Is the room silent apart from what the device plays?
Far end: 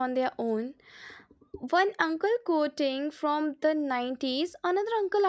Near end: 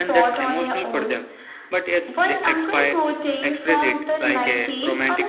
No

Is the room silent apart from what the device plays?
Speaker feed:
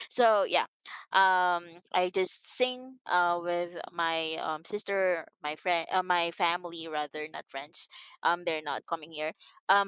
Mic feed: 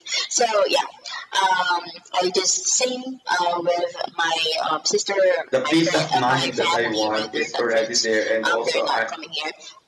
No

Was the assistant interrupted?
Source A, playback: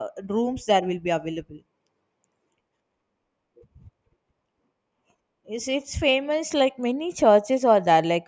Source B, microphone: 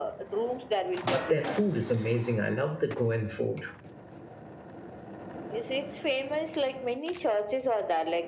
Yes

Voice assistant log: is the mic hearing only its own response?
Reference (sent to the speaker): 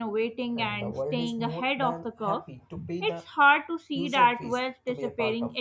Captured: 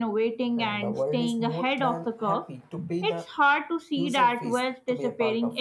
Yes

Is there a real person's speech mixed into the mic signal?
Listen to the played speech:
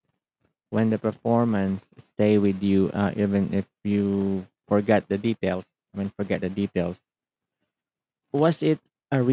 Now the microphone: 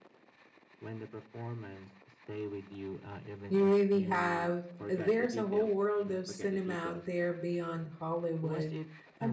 Yes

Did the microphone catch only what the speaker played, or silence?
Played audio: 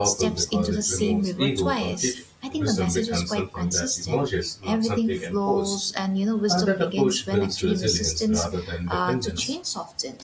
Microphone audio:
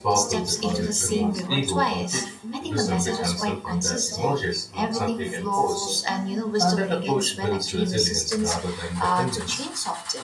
No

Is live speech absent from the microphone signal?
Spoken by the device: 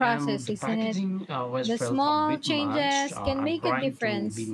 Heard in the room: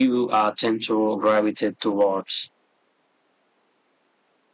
No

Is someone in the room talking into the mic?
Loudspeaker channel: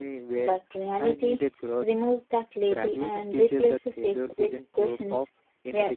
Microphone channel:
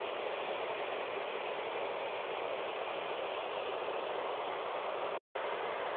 No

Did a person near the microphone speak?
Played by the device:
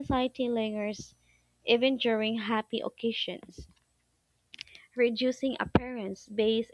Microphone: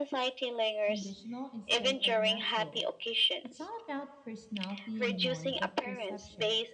Yes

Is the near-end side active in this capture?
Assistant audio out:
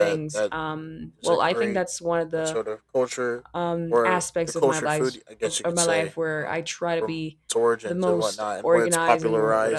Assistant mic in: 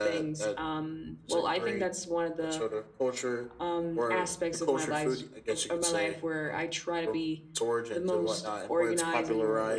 No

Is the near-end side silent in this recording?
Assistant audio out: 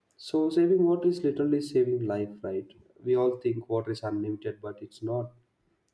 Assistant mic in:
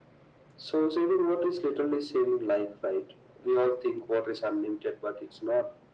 Yes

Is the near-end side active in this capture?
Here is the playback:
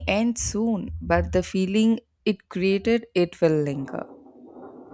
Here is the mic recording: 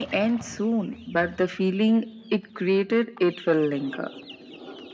No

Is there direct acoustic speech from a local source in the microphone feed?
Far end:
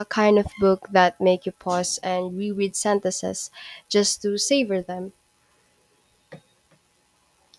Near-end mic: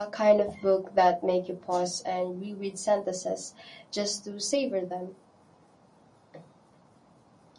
No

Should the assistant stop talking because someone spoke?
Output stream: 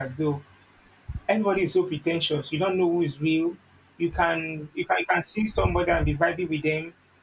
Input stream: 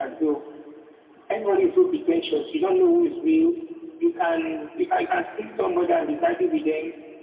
No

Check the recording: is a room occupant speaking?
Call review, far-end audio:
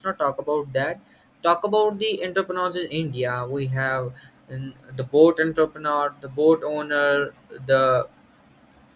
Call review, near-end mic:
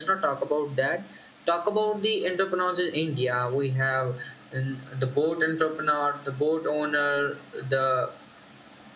No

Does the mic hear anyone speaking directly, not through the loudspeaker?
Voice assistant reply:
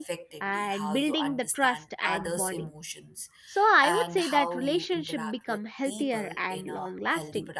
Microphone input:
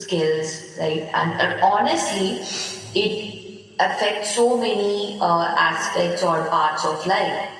Yes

